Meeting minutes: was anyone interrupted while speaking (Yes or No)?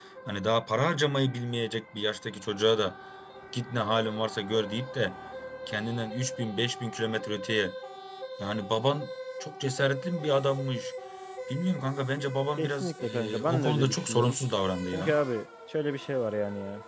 Yes